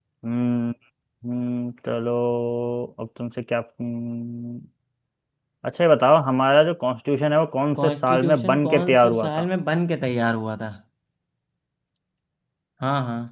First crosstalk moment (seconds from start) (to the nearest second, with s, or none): 8 s